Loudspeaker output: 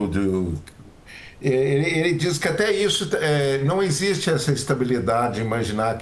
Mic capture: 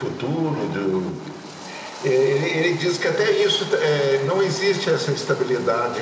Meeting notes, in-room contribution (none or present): none